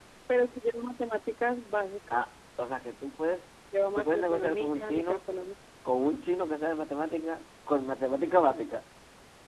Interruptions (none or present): present